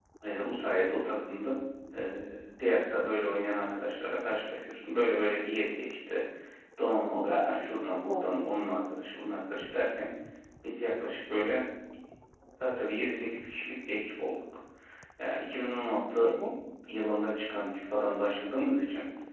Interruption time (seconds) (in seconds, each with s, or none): 7.3 s